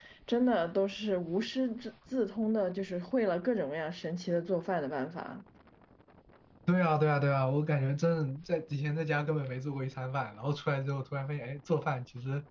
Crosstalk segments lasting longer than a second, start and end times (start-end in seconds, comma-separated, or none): none